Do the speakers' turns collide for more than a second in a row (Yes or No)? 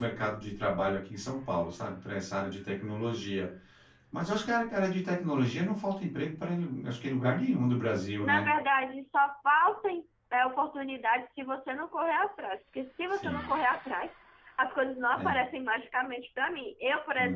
No